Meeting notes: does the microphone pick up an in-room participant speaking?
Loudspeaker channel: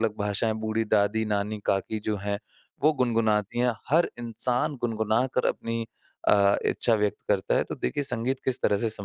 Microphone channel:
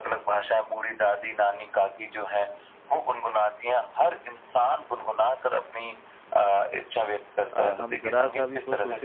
Yes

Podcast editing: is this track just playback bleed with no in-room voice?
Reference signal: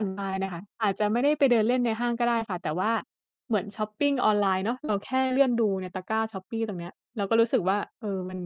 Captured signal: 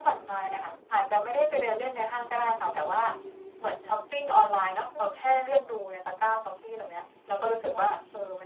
Yes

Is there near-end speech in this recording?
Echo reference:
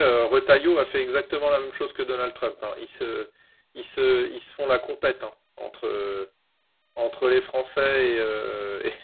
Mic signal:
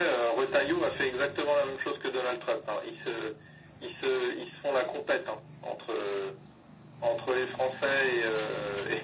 No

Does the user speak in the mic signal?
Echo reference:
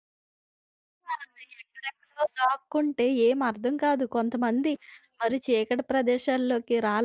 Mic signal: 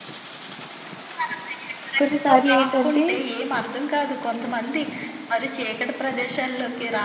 Yes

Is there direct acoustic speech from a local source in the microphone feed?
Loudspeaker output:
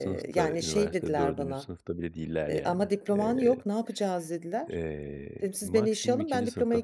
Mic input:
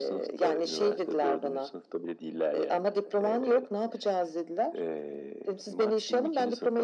No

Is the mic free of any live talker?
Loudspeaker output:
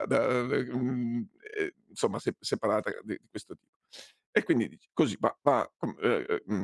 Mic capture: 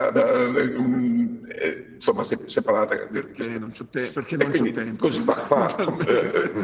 No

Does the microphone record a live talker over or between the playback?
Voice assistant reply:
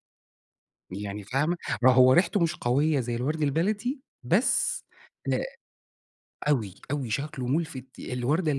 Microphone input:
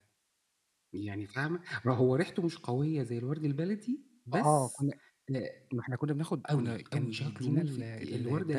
Yes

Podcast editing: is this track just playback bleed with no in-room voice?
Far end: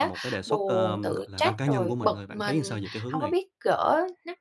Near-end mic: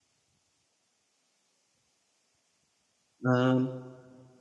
No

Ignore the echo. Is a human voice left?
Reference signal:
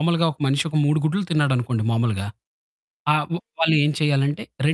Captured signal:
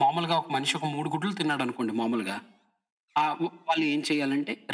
No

